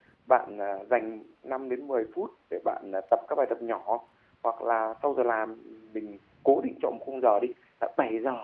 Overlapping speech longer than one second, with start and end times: none

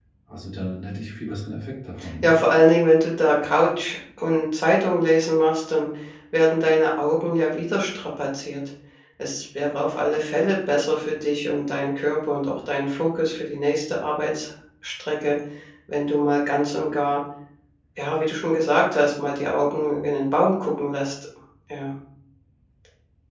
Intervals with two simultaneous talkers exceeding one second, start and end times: none

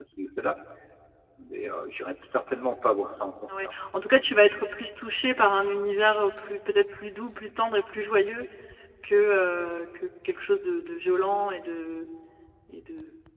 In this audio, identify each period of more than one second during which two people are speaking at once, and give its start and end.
none

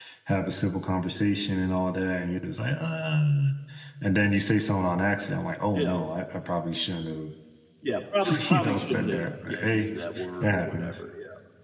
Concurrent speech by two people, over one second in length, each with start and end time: 8.3-9.9

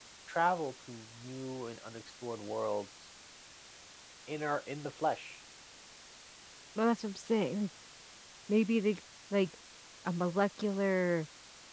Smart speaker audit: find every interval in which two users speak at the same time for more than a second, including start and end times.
none

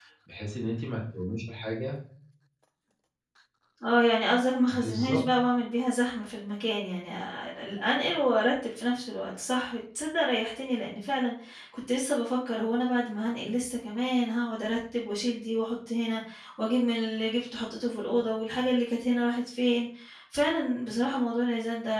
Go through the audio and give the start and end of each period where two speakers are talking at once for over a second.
none

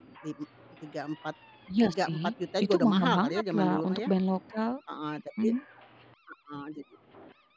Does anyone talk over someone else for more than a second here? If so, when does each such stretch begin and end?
2.6-4.1

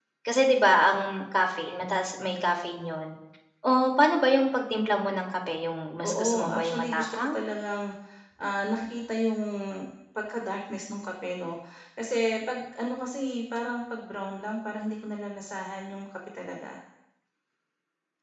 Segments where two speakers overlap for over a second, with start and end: 6.0-7.5

